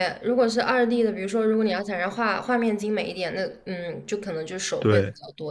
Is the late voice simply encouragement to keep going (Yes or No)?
Yes